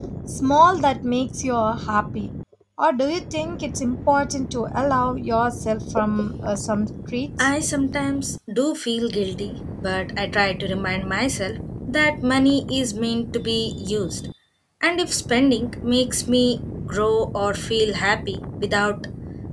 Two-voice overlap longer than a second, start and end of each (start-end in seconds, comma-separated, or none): none